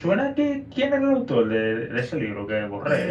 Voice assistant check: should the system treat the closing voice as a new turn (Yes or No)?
Yes